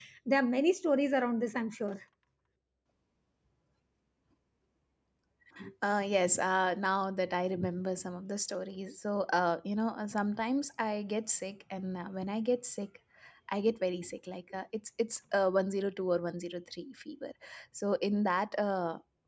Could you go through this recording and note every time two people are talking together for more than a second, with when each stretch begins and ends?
none

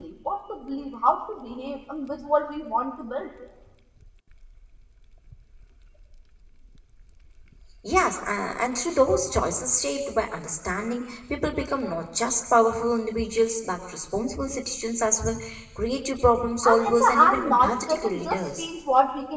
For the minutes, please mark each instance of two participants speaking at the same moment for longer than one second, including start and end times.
16.6-18.7

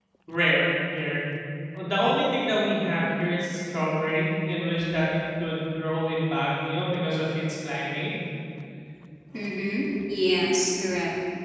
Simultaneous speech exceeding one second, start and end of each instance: none

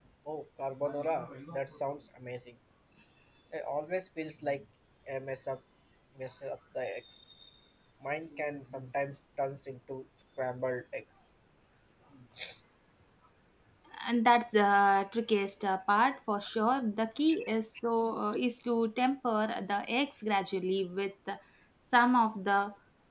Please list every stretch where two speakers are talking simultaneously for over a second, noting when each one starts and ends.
none

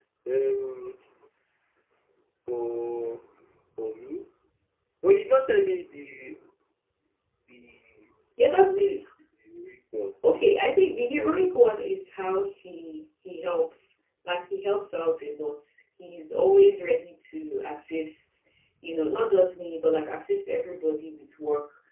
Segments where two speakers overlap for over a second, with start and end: 10.5-11.8

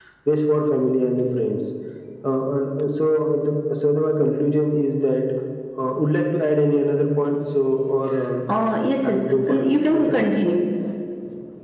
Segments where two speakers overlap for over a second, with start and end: 9.0-10.2

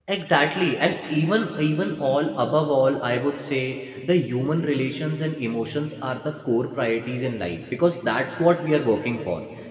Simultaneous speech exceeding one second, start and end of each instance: none

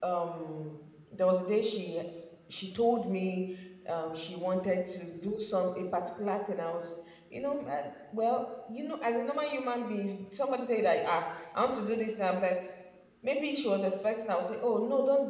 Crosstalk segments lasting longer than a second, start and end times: none

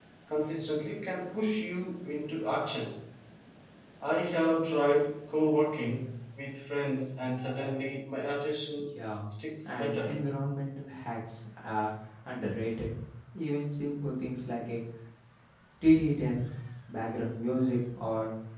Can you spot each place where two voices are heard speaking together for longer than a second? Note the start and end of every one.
none

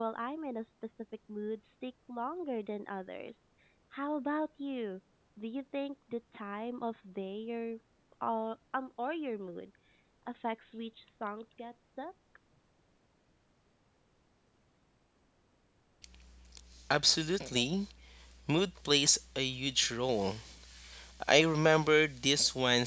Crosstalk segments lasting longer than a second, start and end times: none

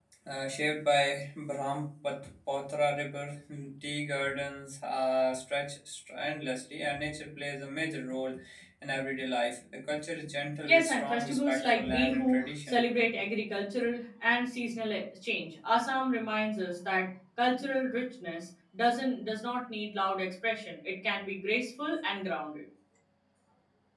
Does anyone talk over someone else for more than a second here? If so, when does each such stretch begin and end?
10.6-12.8

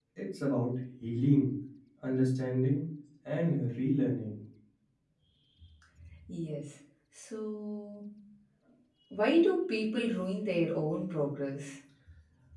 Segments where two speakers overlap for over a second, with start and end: none

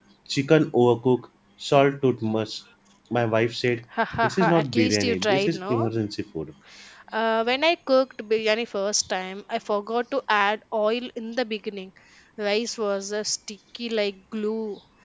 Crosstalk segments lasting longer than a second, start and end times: 4.2-5.9

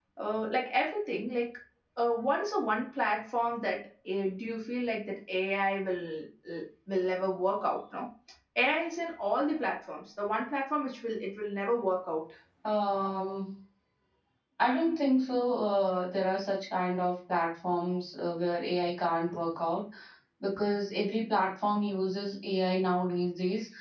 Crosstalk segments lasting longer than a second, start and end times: none

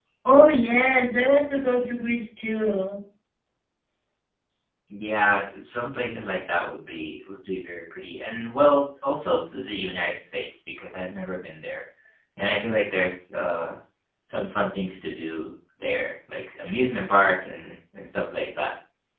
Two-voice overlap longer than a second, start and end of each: none

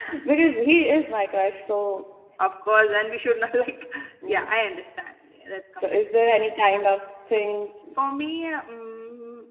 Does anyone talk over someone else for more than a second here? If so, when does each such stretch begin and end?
none

